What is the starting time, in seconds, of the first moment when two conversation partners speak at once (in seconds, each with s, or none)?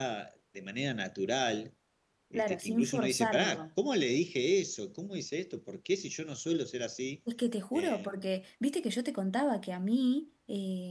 2.3 s